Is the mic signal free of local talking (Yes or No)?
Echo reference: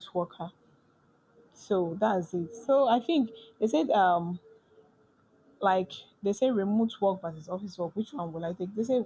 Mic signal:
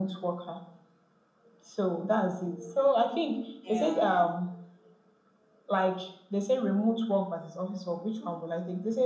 No